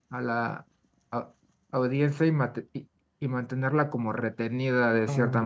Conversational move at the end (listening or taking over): taking over